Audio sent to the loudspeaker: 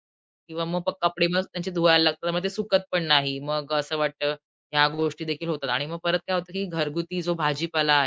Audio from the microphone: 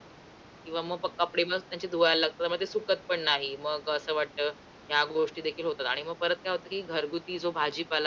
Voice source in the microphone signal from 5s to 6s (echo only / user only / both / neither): echo only